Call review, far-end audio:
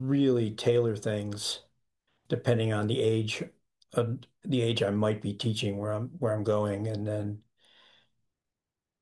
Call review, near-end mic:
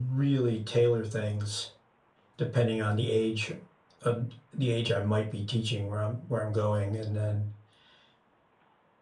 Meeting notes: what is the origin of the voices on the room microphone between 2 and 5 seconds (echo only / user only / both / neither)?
echo only